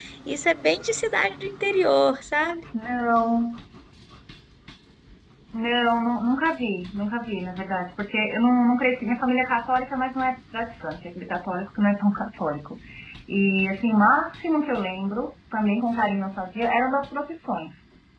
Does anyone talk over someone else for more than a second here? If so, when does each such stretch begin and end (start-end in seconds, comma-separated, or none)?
none